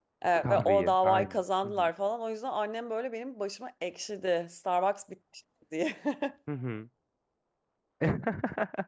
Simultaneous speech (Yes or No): Yes